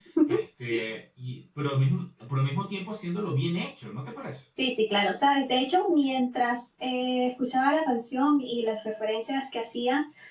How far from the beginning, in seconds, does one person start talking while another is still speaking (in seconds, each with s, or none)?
none